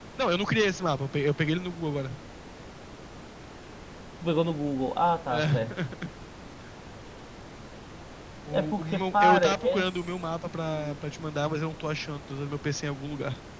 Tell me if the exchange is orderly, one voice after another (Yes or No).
No